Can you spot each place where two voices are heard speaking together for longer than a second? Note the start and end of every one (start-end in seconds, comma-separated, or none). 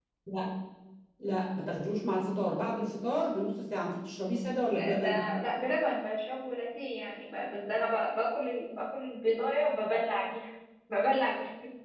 none